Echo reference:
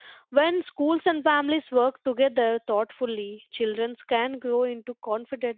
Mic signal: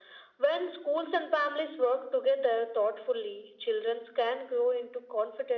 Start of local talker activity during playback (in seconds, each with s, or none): none